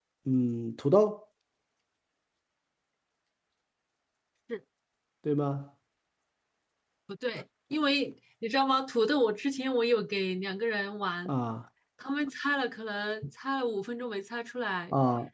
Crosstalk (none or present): none